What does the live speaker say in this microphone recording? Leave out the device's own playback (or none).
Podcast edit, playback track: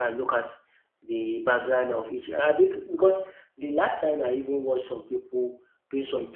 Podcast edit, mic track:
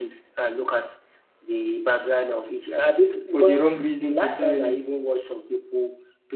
for the wrong reasons entirely.